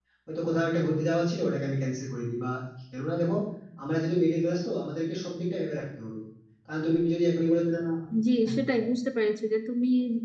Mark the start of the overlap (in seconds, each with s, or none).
none